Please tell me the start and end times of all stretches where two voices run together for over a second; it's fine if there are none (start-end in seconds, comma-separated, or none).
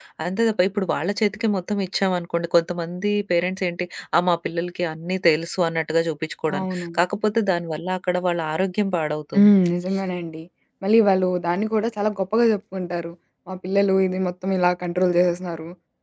none